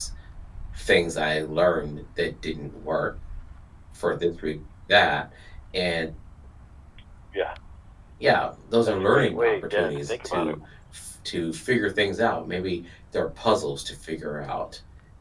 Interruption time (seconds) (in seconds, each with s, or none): 8.8 s